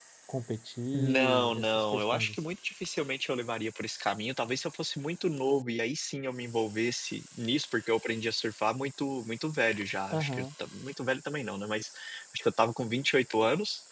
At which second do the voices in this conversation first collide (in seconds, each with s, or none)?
0.9 s